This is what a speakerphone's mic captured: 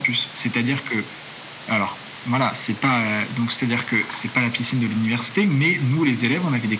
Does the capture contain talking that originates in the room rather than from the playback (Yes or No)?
No